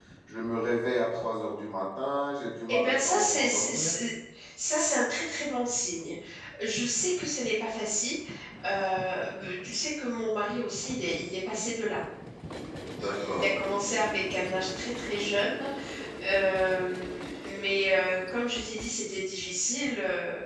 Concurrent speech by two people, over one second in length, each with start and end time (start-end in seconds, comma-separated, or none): 2.7-3.9